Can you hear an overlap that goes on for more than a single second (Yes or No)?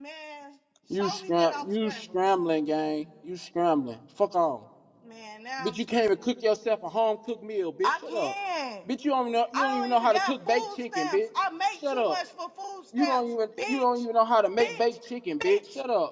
Yes